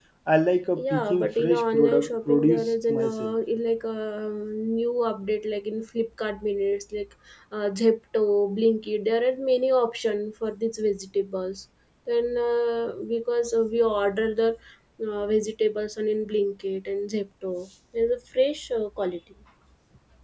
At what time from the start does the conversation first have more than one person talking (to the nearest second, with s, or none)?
1 s